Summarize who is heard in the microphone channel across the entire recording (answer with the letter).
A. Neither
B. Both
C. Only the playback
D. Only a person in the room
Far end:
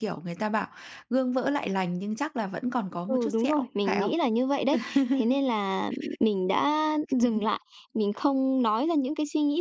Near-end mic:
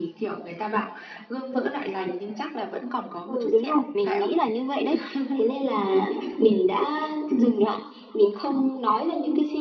C